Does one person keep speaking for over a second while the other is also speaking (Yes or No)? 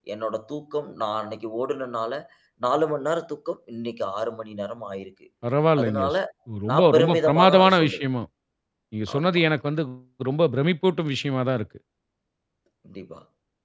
Yes